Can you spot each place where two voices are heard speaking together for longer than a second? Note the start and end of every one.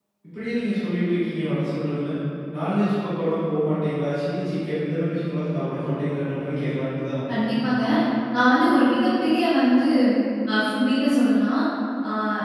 none

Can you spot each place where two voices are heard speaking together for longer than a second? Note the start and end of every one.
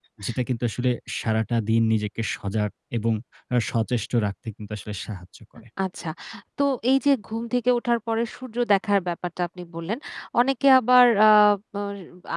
none

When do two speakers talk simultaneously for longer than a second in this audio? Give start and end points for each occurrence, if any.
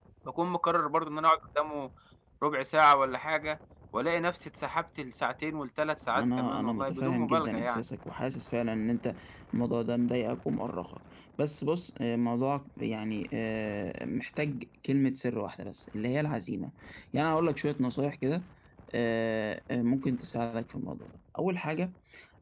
6.1-7.8

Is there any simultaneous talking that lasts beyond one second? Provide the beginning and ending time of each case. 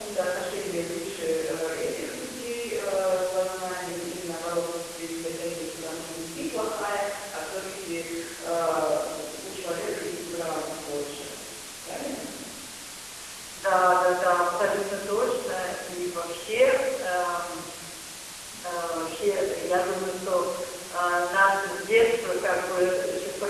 none

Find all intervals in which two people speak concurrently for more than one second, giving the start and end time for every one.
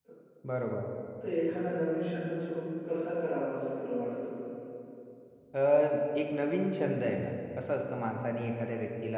none

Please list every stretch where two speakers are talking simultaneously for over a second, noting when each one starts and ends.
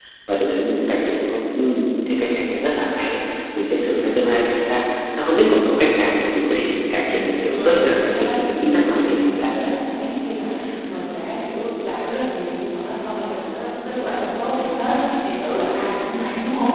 7.1-9.5

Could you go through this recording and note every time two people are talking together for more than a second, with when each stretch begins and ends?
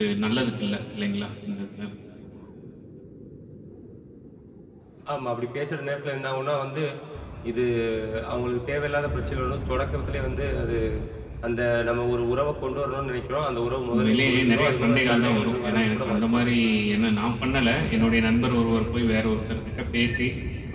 13.9-16.5

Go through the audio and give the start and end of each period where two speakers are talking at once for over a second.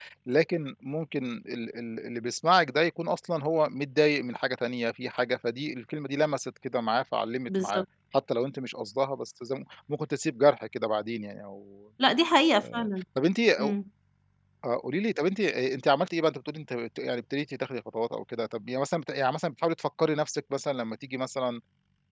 none

